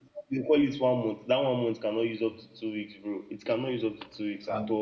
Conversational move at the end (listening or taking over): taking over